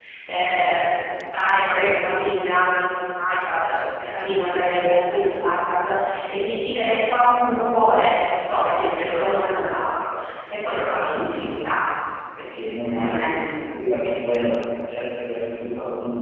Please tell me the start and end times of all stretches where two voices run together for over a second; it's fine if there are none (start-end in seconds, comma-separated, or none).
none